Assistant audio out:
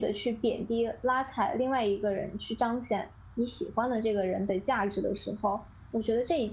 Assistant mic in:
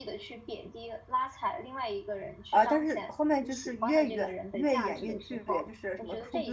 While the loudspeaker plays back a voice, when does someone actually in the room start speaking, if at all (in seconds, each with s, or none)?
2.5 s